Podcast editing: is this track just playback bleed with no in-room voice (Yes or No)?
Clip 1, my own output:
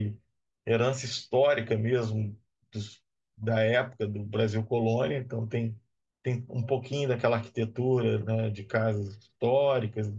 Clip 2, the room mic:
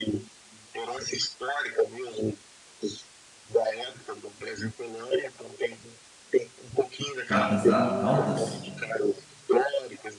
No